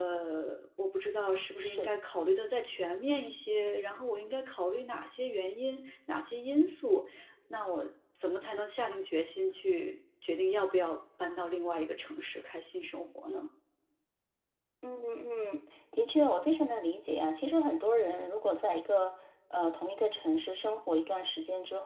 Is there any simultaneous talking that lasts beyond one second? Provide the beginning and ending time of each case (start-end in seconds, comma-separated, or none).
none